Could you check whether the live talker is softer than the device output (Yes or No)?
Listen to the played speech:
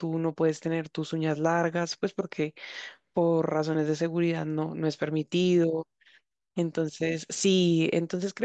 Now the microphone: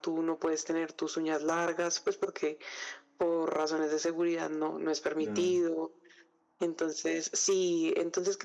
Yes